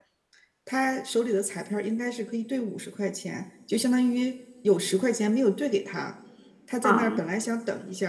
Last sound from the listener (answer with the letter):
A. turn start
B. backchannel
B